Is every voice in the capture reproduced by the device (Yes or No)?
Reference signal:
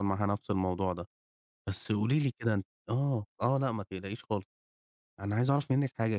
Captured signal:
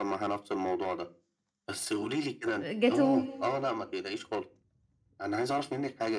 No